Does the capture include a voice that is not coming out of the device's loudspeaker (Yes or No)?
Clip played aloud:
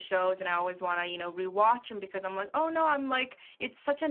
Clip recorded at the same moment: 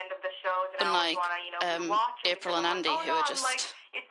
Yes